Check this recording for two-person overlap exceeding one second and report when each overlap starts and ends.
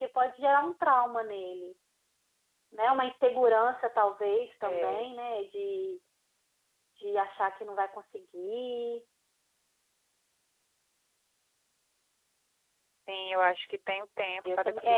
none

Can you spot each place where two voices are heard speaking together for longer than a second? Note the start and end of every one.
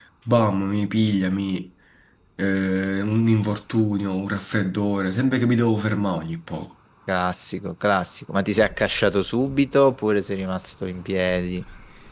none

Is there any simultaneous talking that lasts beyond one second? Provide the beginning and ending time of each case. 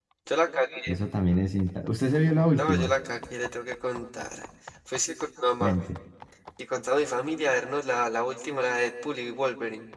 none

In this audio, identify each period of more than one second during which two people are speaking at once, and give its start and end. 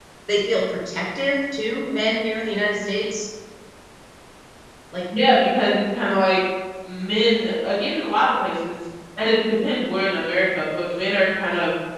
none

